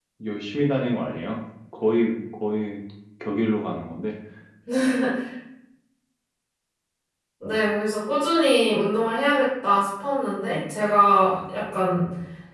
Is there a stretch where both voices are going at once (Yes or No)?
No